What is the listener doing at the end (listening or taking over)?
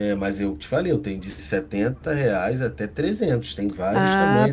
taking over